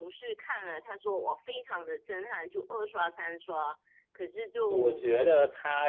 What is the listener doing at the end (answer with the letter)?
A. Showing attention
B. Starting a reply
B